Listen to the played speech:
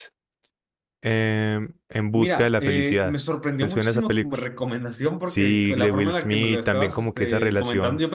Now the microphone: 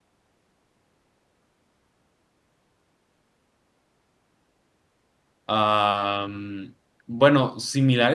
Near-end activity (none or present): present